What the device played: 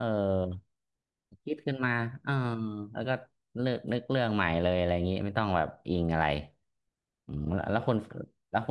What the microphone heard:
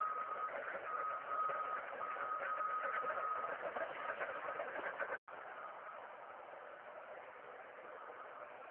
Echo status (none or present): none